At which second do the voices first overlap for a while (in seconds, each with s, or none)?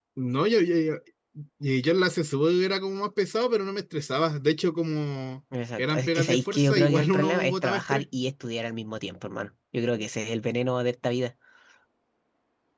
5.8 s